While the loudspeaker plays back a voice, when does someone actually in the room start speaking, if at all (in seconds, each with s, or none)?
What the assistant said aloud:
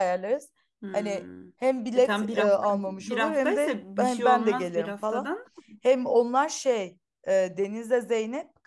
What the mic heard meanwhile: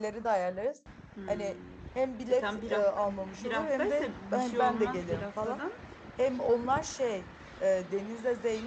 none